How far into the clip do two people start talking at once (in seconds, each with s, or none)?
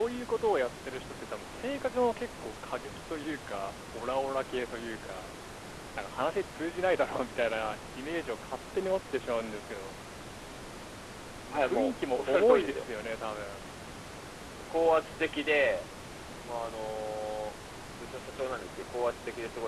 11.5 s